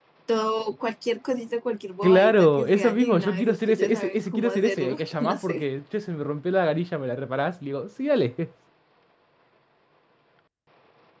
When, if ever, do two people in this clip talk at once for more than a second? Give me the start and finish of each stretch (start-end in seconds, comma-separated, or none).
2.0-5.6